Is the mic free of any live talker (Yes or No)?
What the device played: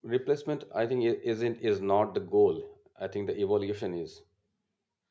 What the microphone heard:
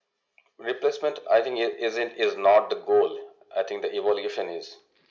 Yes